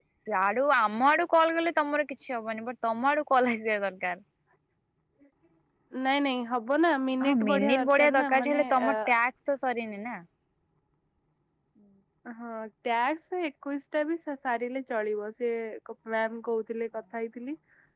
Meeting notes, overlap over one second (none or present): present